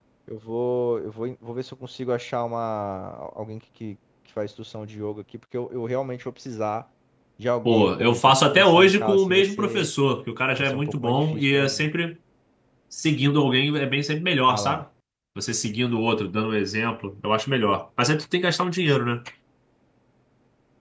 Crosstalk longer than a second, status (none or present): present